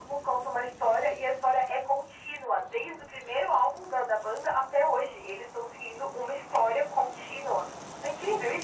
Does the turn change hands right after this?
Yes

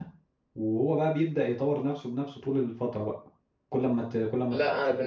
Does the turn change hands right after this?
Yes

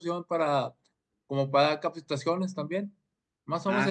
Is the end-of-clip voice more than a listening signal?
No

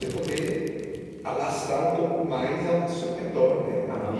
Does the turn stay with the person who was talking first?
Yes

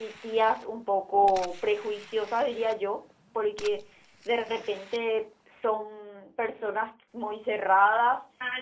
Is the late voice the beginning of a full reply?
Yes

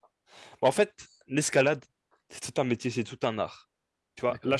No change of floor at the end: Yes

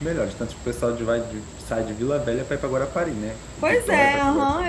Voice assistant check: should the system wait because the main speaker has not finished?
No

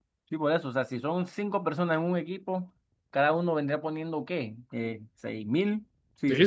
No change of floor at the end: No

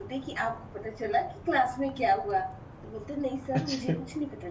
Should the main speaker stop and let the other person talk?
No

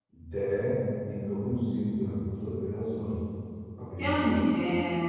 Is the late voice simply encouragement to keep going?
No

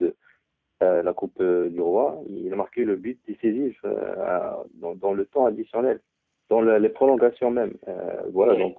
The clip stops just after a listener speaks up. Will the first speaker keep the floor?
Yes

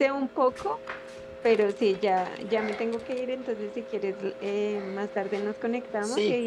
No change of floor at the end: Yes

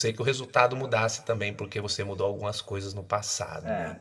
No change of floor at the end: No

